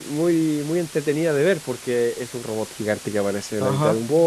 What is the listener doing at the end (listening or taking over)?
taking over